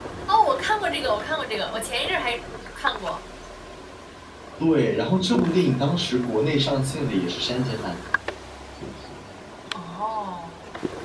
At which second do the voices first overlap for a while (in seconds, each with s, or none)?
none